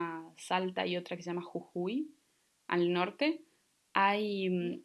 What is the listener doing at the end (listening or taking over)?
listening